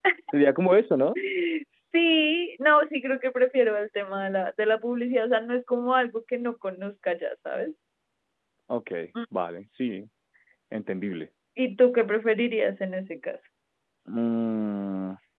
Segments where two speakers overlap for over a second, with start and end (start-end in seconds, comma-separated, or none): none